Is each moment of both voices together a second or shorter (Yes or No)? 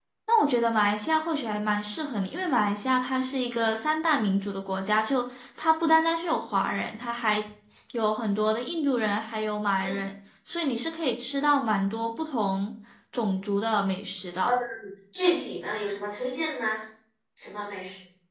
Yes